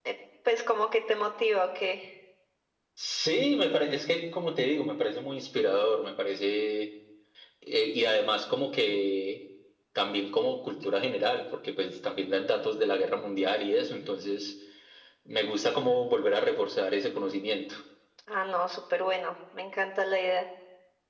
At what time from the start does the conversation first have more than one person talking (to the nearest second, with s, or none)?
none